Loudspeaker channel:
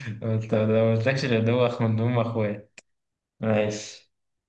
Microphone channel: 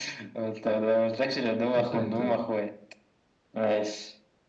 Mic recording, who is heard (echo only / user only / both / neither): both